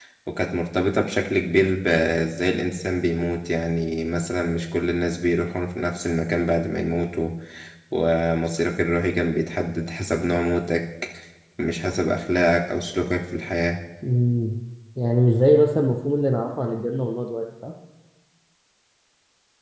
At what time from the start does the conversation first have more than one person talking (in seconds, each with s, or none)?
none